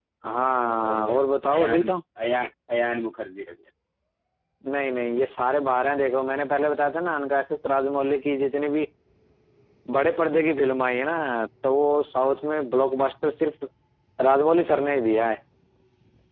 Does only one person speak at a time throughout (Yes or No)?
No